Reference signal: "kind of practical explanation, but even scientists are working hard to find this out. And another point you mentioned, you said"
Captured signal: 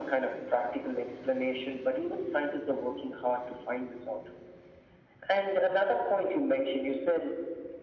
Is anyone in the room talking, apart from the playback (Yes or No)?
No